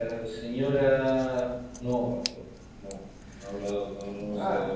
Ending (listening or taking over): taking over